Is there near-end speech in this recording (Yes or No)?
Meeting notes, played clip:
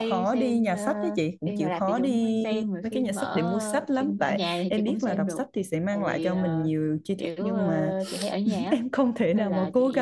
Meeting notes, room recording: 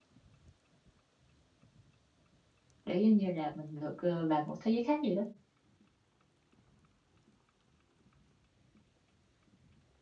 Yes